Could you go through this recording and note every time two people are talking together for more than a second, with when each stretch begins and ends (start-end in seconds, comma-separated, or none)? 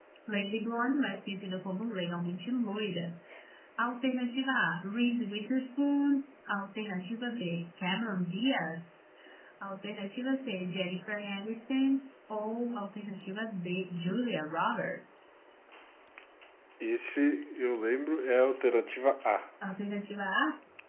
none